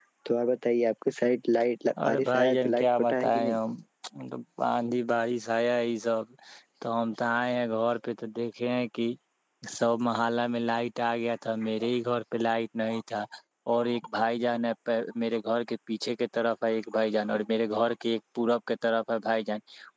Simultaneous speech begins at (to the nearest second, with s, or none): 2 s